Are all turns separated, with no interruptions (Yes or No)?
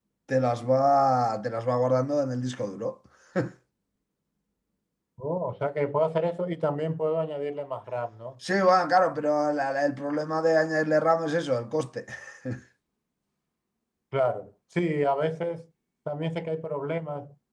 Yes